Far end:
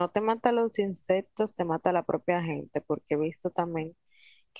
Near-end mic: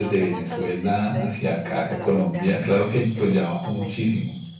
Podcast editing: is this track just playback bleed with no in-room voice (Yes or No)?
No